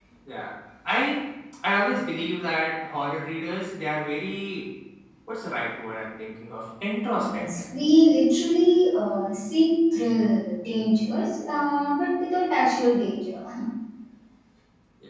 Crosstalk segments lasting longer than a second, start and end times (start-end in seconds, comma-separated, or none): none